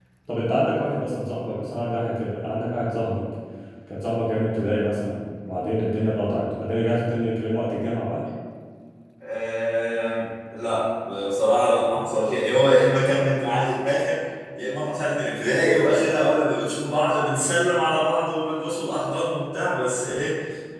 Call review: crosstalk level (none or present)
none